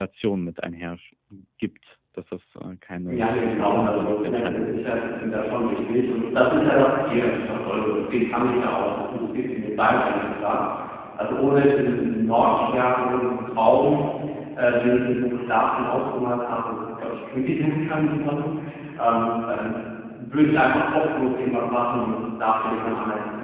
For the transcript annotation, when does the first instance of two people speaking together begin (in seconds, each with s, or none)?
3.0 s